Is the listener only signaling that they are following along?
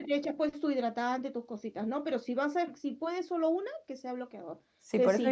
No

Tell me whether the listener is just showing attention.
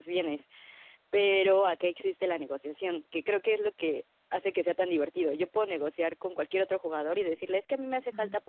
Yes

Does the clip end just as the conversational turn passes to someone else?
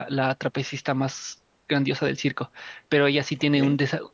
No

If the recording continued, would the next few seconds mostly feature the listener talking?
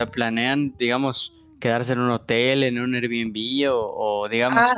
No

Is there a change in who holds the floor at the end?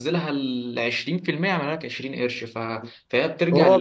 Yes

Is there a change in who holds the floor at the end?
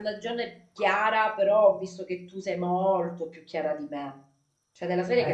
No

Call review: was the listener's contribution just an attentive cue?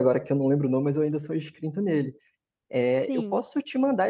Yes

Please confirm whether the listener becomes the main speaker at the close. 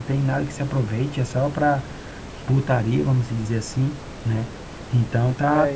Yes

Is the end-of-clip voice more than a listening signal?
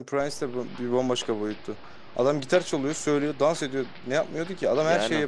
Yes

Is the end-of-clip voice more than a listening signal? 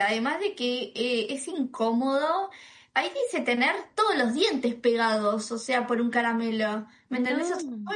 No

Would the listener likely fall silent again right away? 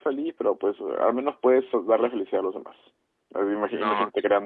Yes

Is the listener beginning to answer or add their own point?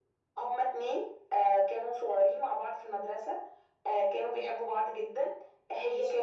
No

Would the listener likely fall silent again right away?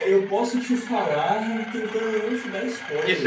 No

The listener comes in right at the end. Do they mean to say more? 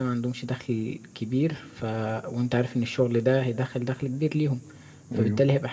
No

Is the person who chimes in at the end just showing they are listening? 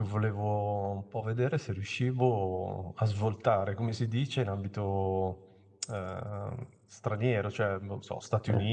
Yes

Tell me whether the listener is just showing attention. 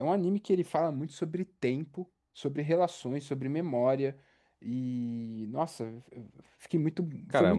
No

